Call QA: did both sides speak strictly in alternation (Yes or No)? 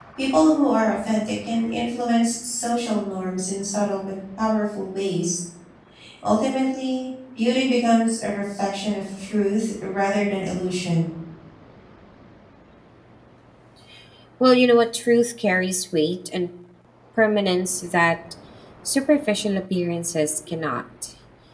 Yes